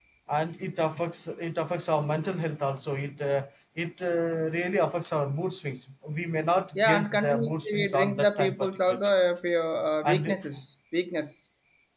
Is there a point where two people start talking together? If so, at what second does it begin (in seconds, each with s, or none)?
6.8 s